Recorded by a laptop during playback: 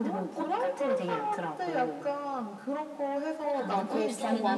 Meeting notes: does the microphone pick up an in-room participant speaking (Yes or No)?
Yes